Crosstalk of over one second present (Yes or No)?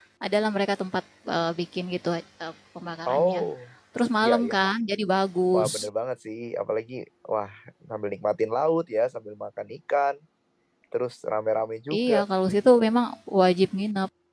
No